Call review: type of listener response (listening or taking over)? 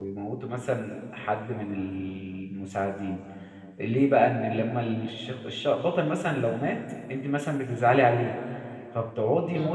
listening